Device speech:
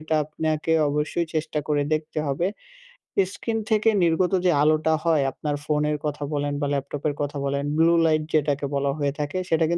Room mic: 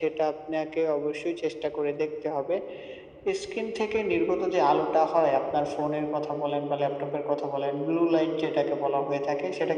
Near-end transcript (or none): none